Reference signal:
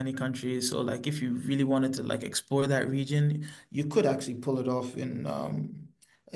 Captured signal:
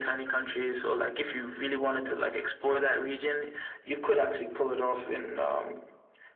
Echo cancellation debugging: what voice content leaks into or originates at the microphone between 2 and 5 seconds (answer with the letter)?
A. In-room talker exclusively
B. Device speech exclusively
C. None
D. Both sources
B